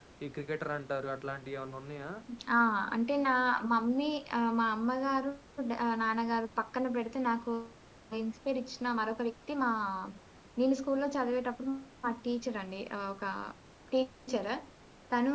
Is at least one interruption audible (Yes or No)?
No